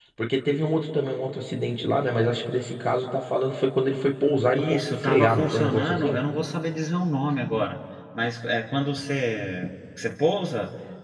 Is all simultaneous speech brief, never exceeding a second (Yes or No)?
No